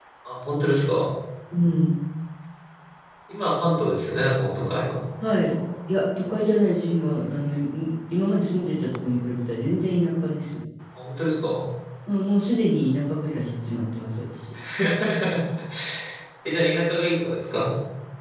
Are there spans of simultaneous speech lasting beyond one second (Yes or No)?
No